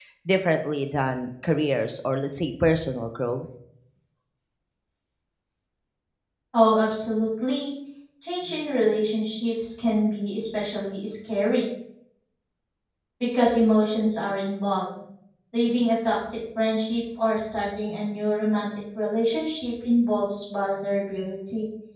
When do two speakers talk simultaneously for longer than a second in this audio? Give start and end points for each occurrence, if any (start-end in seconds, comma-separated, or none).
none